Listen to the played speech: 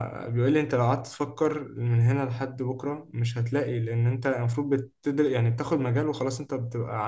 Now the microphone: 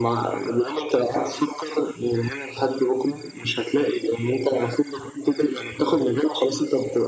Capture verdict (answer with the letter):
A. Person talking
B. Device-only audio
B